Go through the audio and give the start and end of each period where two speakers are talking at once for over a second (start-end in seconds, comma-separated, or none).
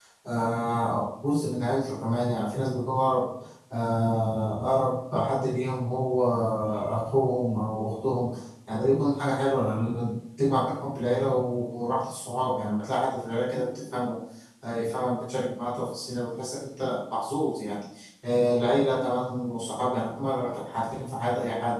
none